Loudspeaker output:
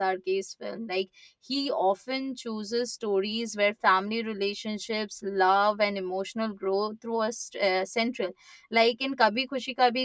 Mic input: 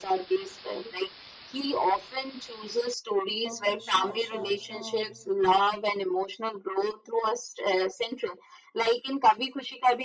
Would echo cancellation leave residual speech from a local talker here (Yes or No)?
Yes